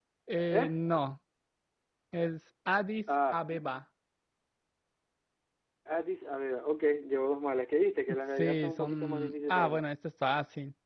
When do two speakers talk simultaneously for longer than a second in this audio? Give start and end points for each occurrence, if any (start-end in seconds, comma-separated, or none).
8.3-9.8